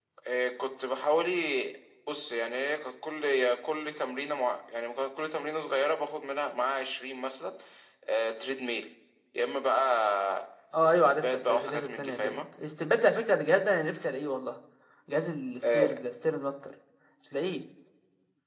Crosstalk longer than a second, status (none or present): present